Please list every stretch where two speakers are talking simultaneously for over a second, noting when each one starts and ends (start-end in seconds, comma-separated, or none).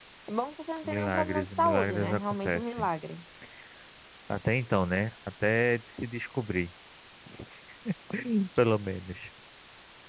0.8-2.9